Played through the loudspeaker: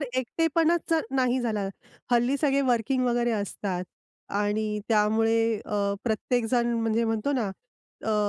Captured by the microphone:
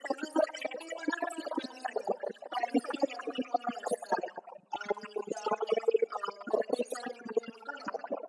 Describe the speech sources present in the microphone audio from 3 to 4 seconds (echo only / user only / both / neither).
echo only